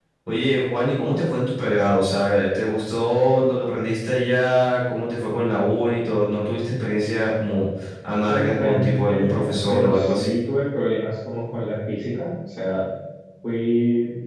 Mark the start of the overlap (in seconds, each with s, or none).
8.3 s